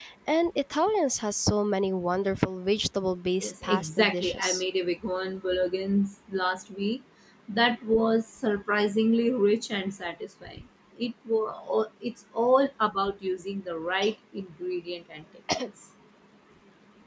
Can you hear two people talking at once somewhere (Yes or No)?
Yes